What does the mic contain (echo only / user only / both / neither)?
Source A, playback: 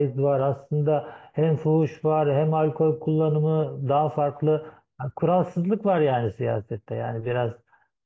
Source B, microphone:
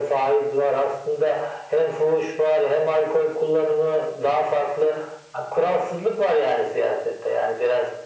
echo only